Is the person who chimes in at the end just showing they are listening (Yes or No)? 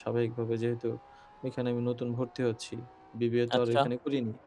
Yes